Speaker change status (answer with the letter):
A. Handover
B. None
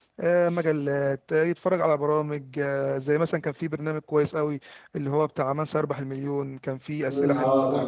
A